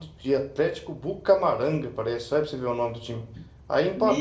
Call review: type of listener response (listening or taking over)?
listening